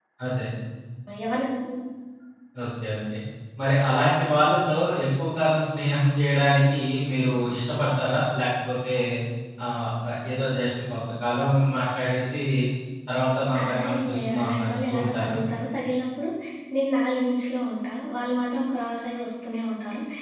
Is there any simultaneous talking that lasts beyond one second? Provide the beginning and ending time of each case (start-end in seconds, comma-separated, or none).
13.6-15.3